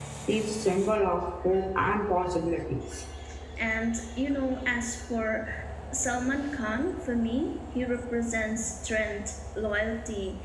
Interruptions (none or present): none